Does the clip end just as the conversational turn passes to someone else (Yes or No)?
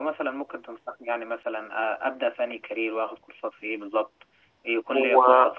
No